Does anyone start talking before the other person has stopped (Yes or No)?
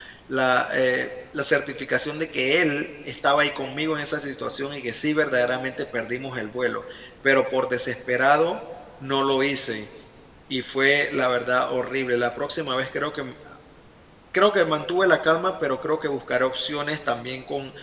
No